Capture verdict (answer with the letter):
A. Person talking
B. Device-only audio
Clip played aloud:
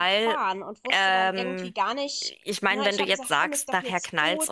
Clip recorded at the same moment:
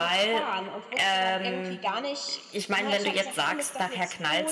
B